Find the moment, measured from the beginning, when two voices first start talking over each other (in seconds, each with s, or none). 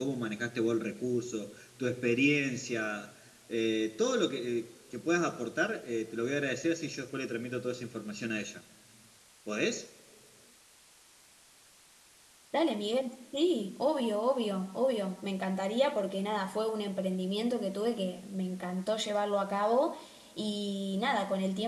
none